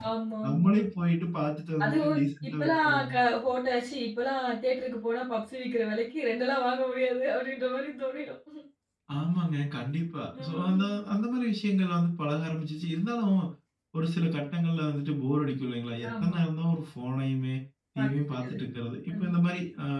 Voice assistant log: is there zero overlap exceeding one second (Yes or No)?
No